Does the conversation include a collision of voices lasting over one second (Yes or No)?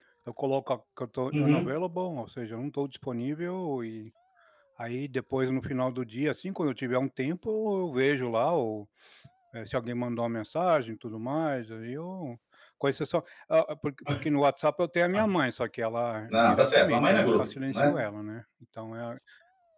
Yes